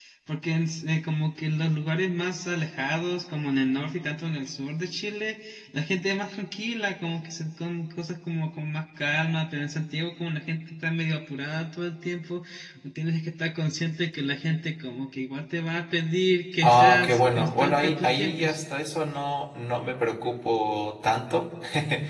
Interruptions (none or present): present